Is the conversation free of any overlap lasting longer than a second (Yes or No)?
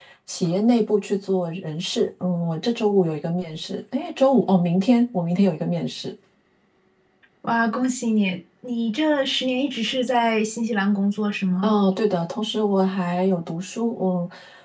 Yes